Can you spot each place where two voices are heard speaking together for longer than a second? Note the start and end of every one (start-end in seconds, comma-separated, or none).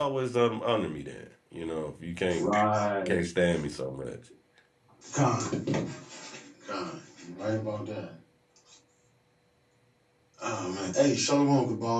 none